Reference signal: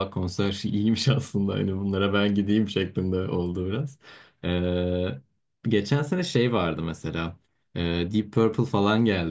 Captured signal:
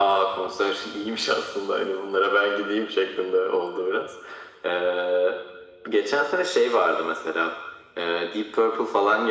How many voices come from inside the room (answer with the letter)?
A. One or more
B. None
B